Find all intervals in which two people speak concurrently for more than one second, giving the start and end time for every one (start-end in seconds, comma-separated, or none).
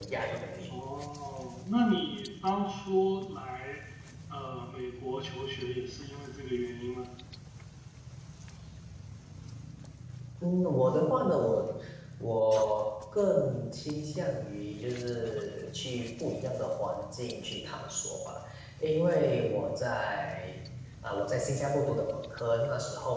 none